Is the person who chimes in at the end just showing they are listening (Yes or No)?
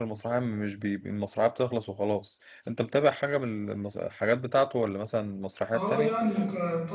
No